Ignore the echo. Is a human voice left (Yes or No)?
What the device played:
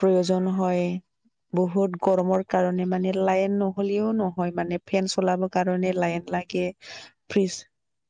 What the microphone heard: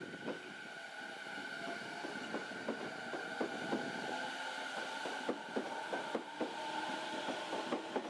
No